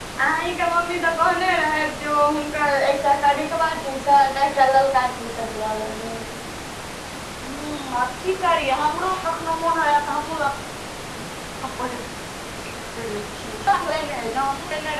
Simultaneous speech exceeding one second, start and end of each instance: none

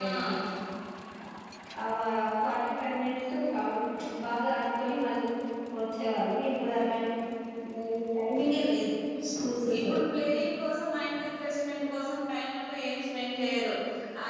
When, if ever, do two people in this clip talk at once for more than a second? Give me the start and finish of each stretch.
none

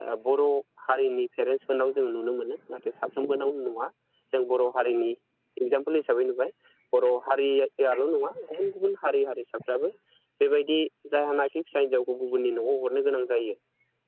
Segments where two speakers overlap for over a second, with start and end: none

